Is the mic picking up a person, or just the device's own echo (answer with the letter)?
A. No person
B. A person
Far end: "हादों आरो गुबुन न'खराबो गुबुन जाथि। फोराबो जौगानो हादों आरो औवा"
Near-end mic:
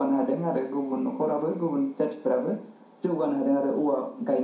A